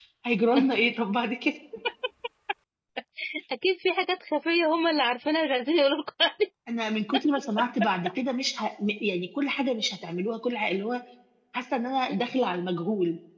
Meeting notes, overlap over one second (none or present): none